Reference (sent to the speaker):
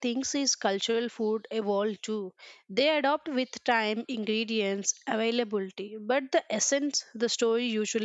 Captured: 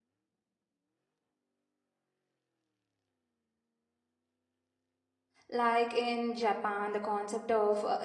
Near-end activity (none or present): present